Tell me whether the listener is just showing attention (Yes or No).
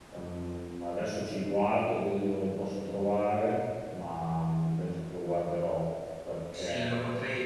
No